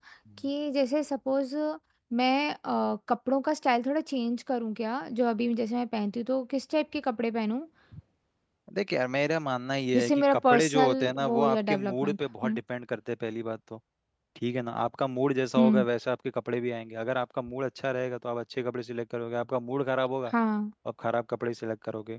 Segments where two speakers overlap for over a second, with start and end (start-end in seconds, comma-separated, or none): 9.9-12.6